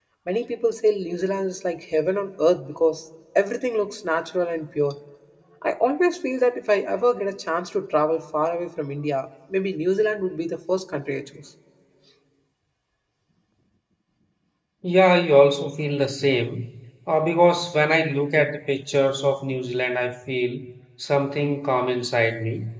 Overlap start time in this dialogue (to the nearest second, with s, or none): none